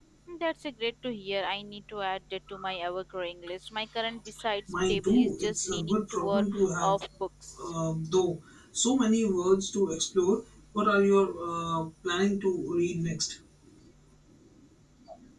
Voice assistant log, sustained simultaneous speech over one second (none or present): present